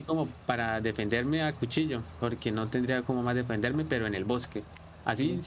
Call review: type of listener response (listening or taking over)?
listening